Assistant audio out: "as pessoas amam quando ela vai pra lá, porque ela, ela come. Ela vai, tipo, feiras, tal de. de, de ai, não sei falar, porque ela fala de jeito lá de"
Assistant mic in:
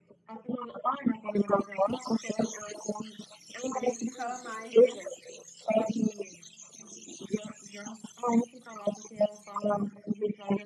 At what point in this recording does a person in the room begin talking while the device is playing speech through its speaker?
3.8 s

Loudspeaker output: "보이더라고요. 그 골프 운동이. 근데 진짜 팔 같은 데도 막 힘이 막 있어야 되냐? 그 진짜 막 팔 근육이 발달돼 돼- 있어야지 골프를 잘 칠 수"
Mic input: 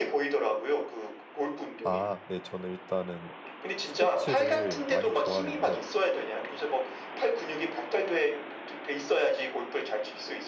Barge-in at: 1.8 s

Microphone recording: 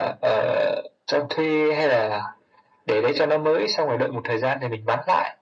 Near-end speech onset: none

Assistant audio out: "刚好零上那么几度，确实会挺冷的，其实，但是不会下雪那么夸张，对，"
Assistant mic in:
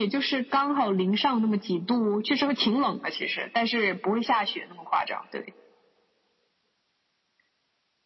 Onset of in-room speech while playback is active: none

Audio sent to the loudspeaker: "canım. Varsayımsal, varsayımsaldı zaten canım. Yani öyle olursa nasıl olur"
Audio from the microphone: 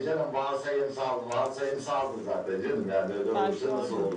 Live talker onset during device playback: 3.3 s

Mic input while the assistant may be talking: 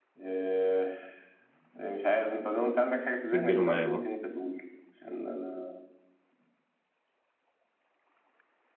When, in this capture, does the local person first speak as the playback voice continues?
3.2 s

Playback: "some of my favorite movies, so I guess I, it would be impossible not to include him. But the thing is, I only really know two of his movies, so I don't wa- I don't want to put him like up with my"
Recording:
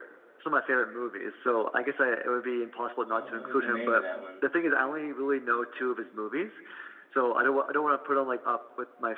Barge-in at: 3.1 s

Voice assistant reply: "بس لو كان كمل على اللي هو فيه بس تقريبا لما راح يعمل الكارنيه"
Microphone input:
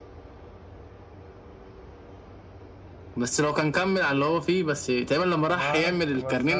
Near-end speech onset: 5.4 s

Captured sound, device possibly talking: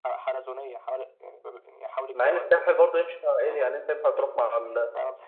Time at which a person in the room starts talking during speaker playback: 2.1 s

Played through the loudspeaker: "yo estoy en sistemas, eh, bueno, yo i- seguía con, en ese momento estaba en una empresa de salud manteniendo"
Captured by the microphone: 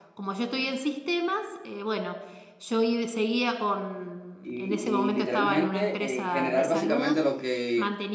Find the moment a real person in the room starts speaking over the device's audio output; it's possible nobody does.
4.4 s

